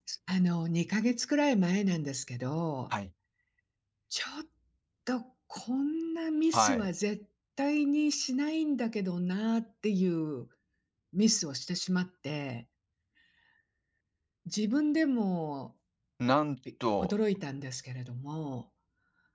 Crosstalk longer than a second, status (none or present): none